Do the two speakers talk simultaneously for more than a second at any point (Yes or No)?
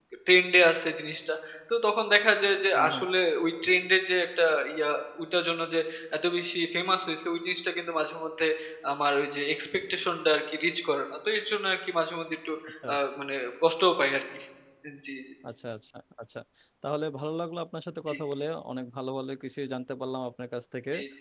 No